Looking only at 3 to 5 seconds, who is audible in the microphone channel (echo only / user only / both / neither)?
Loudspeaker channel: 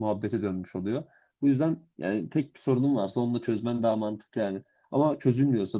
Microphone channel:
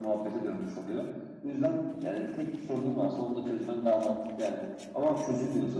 echo only